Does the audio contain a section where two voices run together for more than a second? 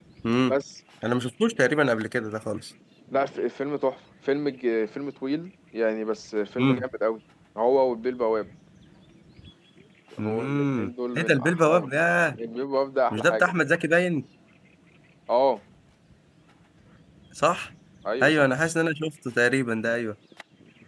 Yes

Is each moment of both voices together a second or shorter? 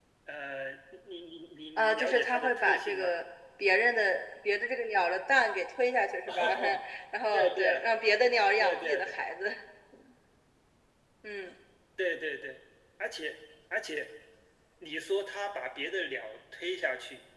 No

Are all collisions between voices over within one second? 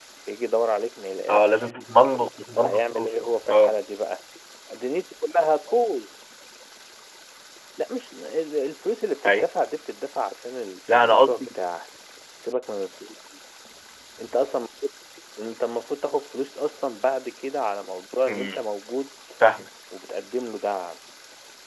No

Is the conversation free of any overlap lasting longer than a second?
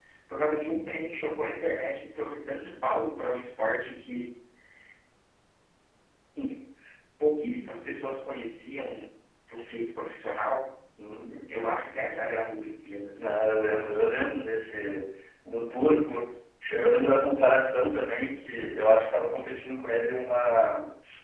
Yes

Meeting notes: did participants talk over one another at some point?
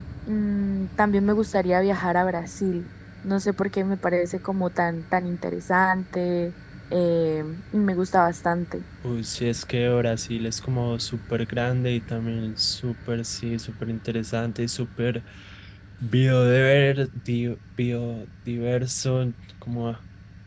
No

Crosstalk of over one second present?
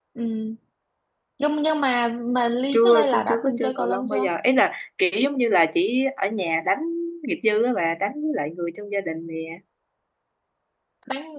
Yes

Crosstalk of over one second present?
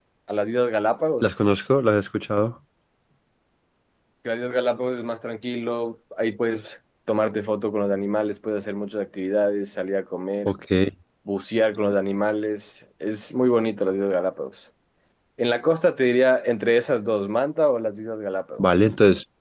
No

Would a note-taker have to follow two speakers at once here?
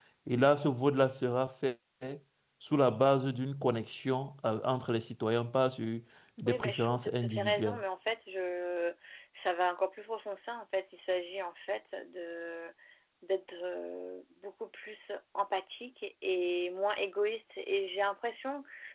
Yes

